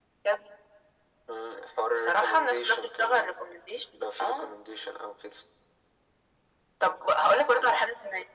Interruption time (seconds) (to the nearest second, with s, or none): 2 s